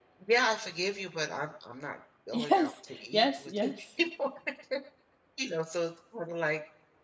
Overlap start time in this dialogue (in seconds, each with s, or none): 2.3 s